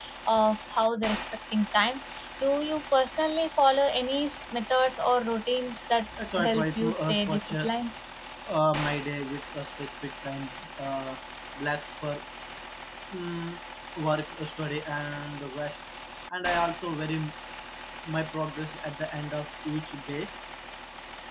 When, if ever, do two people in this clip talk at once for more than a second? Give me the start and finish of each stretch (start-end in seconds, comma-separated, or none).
6.1-7.7